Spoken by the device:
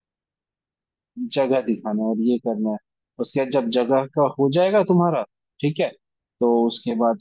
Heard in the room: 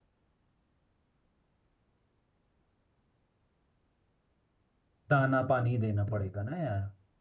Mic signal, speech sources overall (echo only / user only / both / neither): user only